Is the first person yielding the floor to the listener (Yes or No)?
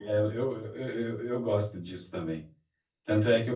No